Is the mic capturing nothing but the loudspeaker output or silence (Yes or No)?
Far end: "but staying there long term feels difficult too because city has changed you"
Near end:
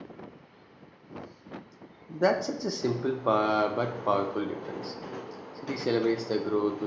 No